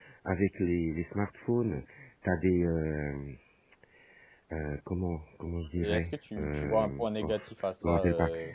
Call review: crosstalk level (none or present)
present